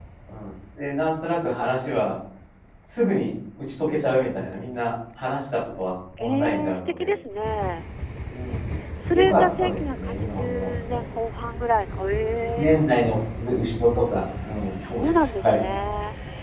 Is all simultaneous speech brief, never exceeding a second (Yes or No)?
No